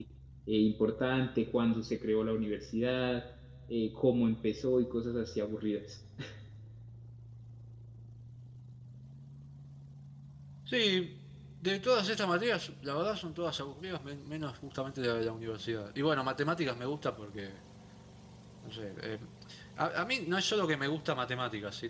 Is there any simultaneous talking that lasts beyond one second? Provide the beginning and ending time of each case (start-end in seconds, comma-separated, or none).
none